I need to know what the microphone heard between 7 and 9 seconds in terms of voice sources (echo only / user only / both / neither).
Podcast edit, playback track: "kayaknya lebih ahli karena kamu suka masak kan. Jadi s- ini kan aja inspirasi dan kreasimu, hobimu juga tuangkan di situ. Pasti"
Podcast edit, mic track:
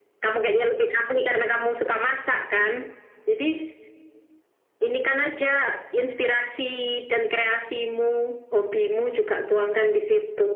echo only